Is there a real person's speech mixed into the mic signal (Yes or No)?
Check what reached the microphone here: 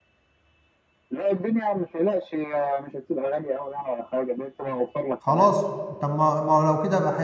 Yes